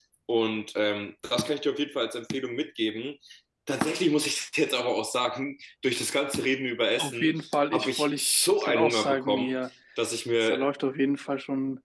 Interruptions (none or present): present